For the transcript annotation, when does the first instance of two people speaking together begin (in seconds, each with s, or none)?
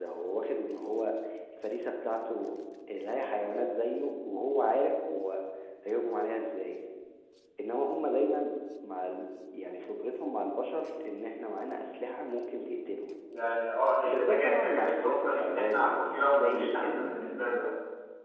14.1 s